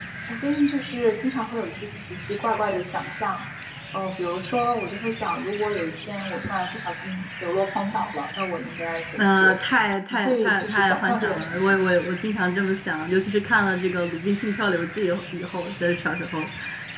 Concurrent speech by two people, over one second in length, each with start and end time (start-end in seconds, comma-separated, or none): 10.1-11.6